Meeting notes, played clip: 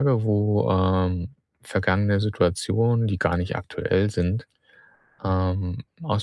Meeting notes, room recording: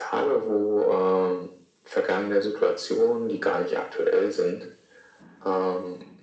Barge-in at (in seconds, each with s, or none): none